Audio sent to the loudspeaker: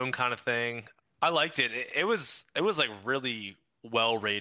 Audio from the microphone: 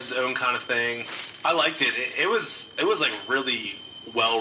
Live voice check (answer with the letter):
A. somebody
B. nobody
B